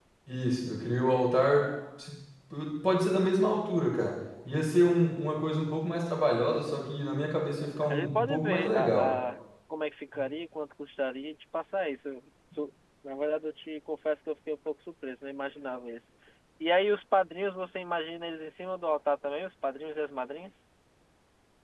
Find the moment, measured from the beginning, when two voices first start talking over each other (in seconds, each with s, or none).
7.8 s